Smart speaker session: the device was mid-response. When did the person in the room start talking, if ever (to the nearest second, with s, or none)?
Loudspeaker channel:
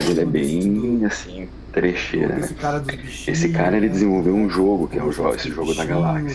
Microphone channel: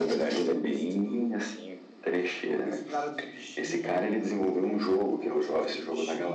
none